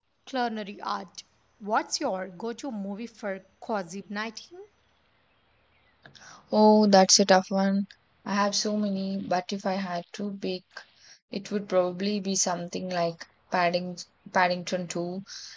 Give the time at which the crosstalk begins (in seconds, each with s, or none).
none